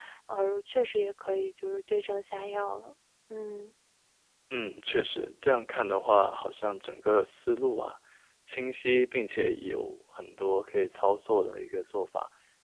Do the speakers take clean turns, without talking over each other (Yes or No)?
Yes